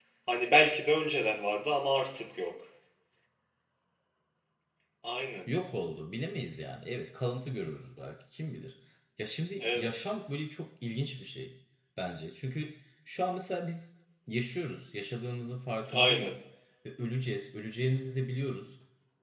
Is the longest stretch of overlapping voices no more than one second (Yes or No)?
Yes